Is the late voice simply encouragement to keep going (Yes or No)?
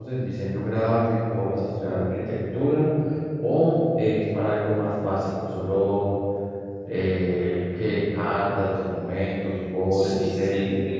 No